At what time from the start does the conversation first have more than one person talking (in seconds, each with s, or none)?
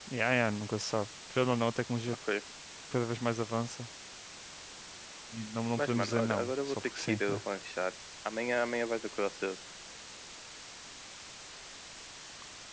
5.8 s